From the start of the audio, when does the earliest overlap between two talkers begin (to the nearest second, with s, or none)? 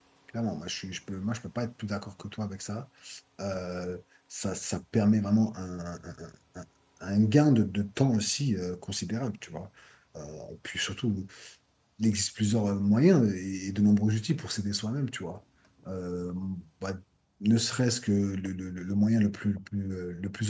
none